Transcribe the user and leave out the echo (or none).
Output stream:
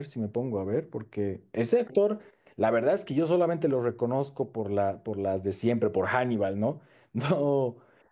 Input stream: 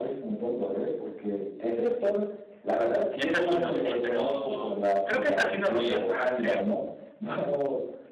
esa sí no sé, pero creo que es Casino Royale, creo.